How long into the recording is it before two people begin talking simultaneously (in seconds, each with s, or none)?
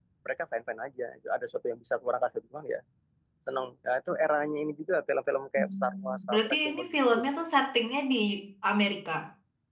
5.6 s